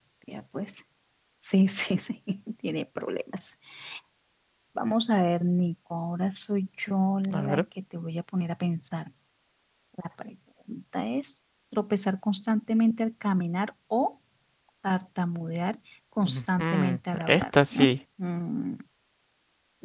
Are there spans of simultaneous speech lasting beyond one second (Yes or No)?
Yes